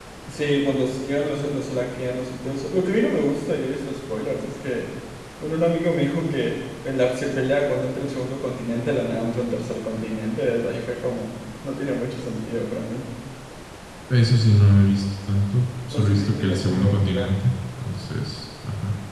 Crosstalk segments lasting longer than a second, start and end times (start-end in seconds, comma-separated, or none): 15.9-17.5